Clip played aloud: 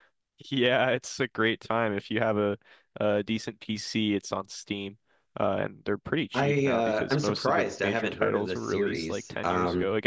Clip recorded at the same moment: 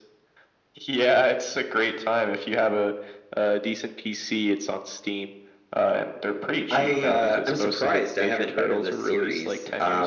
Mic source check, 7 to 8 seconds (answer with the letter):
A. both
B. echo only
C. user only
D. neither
B